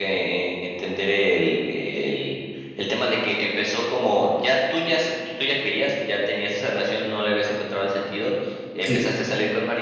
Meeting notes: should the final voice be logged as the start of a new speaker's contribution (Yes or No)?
No